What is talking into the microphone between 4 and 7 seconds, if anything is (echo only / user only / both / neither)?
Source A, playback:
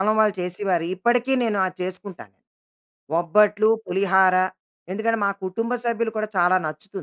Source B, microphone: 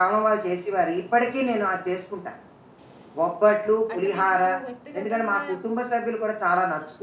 both